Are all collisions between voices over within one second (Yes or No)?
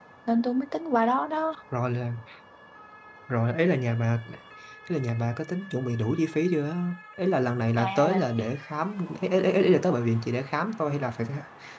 Yes